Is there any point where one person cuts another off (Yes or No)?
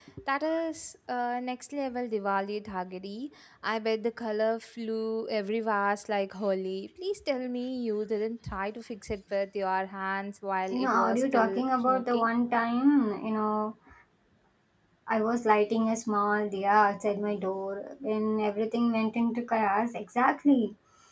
Yes